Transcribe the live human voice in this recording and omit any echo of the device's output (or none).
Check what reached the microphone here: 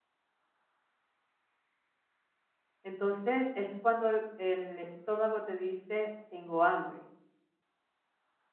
Entonces es cuando el, el estómago te dice, tengo hambre,